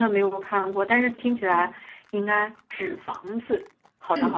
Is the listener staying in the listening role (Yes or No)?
No